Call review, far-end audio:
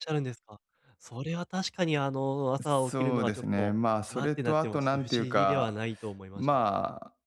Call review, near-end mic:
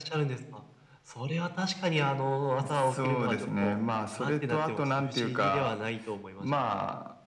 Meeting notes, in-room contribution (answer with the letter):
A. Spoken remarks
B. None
B